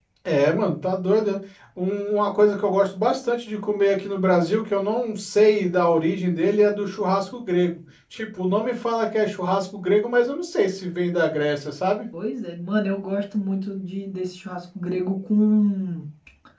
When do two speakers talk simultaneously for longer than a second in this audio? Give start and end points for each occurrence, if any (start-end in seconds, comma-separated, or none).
none